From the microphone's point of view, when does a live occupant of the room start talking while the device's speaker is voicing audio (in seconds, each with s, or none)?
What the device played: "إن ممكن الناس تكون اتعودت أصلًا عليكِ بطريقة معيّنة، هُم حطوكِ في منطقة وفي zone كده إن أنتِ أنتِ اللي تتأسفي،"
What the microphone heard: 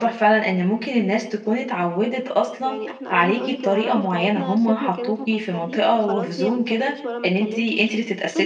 2.6 s